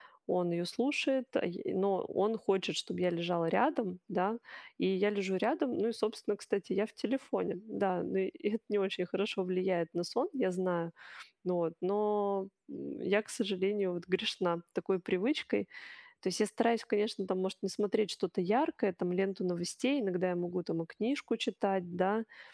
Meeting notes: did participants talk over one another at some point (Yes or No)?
No